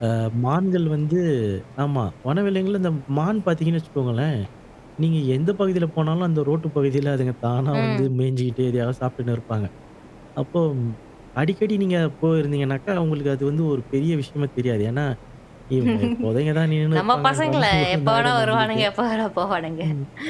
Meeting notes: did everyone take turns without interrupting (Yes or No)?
No